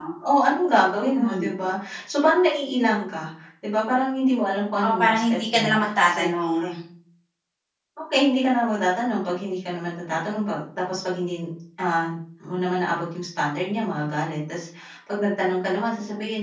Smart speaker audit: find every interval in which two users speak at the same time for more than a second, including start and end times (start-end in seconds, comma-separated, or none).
4.8-6.3